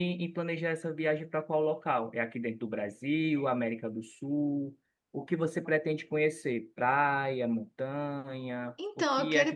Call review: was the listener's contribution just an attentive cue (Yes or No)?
No